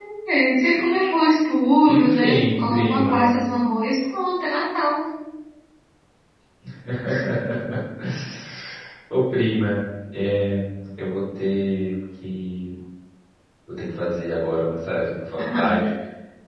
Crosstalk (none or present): present